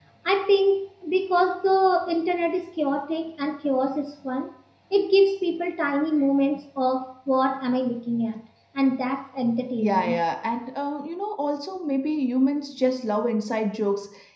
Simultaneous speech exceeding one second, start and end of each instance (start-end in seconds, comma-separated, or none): none